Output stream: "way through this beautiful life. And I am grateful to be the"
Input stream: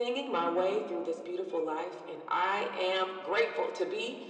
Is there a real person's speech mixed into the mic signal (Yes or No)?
No